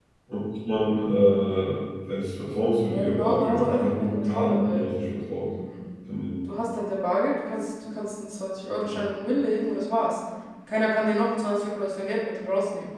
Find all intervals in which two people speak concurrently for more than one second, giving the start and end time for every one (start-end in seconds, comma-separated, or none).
2.9-4.9